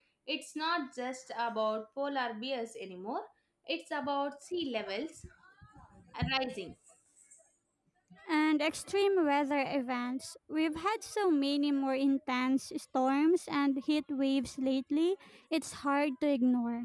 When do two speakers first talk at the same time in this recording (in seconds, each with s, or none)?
none